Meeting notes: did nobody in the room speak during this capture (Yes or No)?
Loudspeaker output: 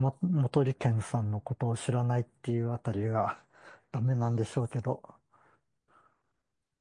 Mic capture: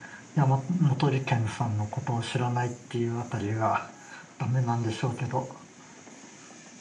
Yes